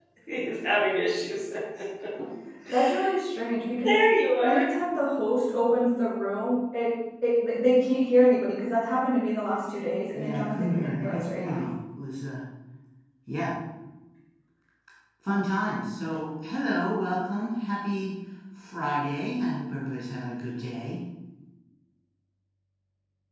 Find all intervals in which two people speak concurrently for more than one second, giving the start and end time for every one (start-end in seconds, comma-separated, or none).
10.1-11.7